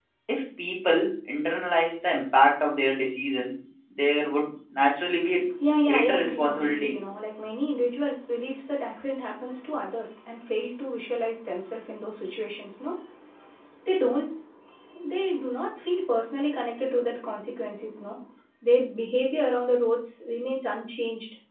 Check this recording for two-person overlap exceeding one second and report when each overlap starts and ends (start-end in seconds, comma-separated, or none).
5.7-7.0